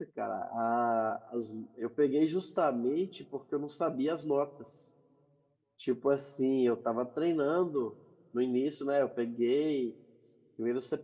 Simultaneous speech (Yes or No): No